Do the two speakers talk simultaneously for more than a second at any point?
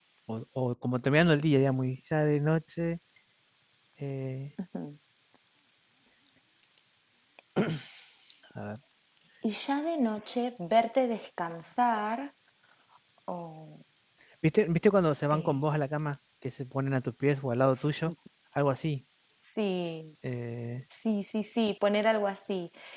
No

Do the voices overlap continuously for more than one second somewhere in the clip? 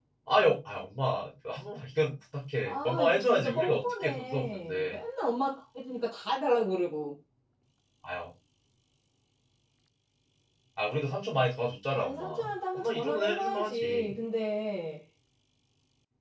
Yes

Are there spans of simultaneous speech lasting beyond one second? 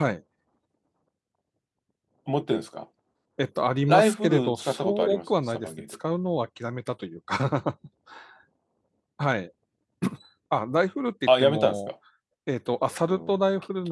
Yes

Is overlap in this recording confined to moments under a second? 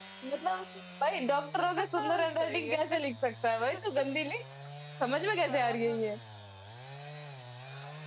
No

